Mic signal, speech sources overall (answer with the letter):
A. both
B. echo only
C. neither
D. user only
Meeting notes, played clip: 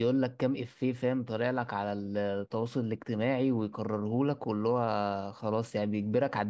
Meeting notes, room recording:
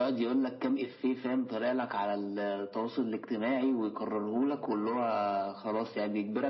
B